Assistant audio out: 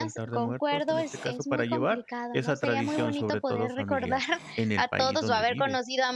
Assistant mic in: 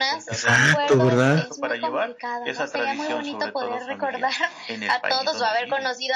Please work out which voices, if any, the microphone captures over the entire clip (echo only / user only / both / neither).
both